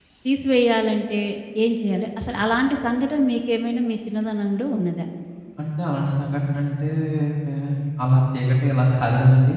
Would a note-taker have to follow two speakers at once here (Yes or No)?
No